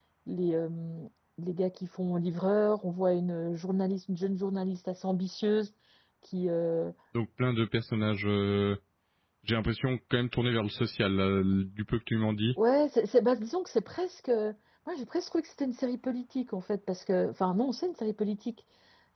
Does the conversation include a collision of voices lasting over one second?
No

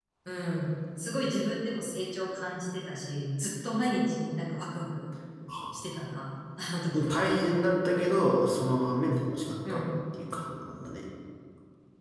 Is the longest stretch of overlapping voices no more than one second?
Yes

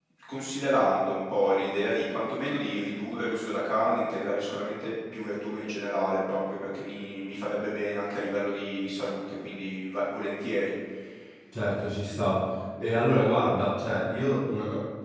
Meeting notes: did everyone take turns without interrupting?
Yes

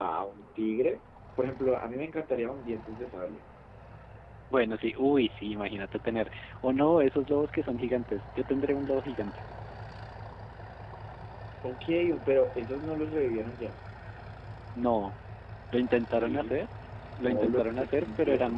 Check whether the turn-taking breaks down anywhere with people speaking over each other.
Yes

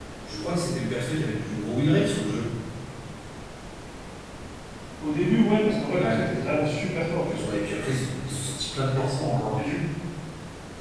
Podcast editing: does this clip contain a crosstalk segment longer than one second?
No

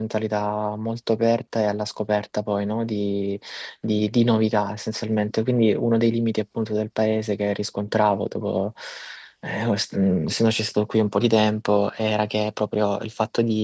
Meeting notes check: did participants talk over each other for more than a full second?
No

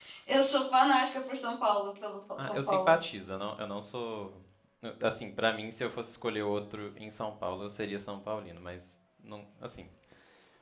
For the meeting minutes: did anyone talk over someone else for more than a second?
No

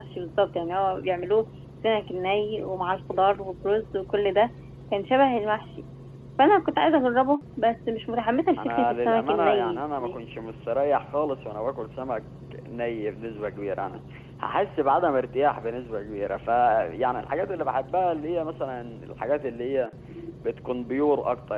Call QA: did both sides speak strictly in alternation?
No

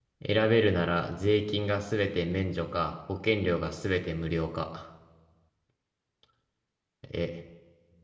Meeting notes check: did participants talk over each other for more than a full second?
No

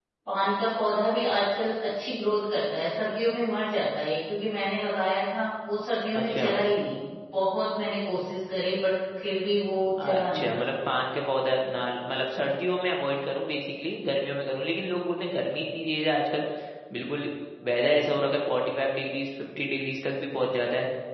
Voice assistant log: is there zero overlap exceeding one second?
Yes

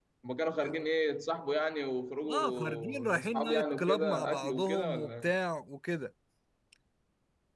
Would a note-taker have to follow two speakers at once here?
Yes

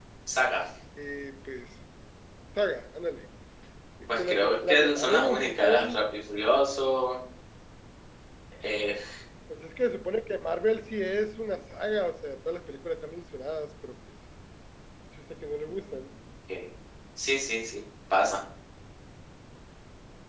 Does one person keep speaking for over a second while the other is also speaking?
Yes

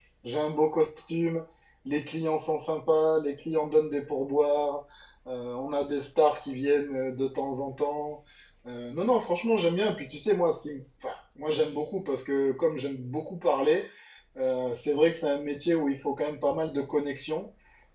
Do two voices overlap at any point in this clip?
No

